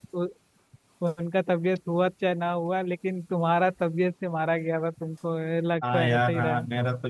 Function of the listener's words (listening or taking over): taking over